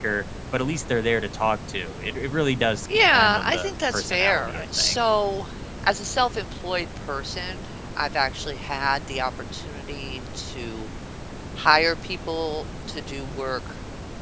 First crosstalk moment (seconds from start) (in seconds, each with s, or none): 2.9 s